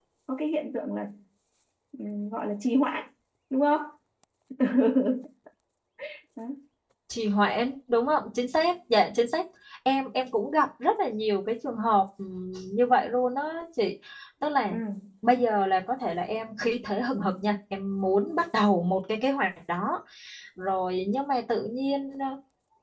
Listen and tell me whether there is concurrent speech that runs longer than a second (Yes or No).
No